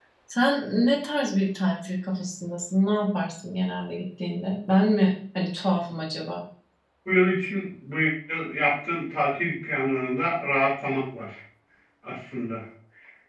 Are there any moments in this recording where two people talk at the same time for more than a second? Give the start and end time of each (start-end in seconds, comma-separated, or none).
none